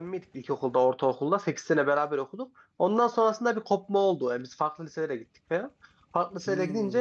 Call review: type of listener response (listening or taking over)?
listening